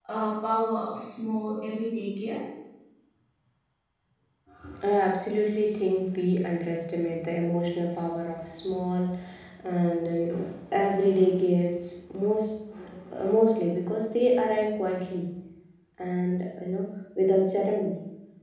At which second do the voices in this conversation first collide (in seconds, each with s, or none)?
none